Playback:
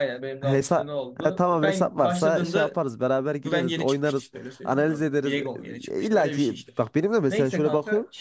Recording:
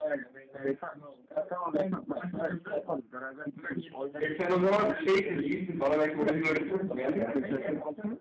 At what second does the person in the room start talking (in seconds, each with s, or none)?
4.2 s